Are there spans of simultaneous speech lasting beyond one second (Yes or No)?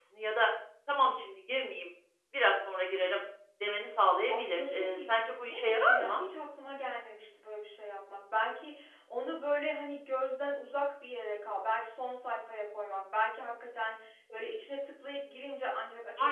Yes